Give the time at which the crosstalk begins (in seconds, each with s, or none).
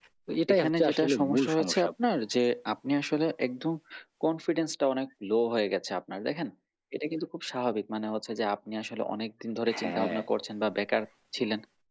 0.5 s